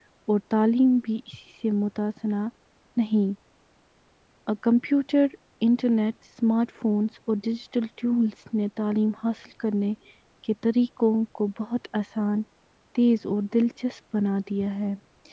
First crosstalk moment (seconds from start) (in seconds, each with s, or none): none